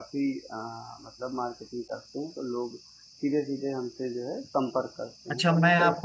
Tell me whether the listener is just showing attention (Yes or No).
No